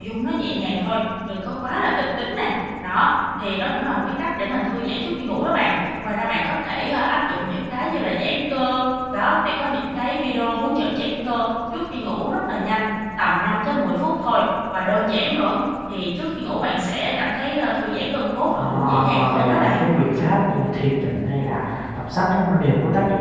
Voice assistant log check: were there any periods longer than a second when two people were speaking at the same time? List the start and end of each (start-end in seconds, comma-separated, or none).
18.5-19.8